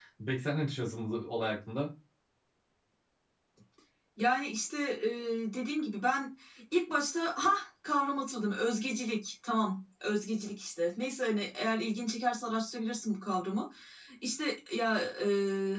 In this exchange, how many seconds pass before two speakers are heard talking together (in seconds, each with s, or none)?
none